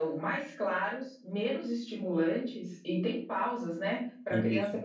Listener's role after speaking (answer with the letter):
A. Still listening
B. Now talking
A